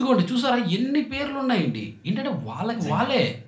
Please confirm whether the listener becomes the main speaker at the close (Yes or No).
No